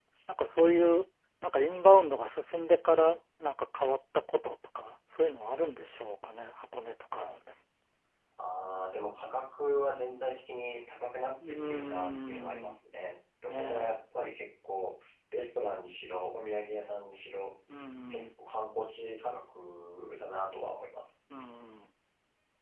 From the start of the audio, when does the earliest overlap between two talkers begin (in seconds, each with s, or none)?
11.3 s